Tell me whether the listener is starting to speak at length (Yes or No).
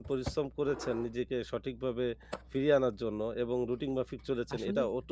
Yes